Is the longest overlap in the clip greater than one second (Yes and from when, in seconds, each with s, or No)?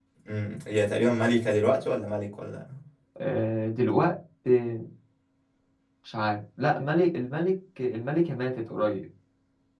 No